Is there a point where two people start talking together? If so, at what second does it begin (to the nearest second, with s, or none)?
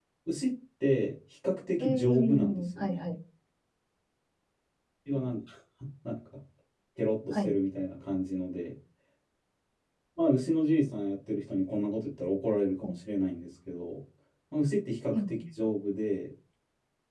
2 s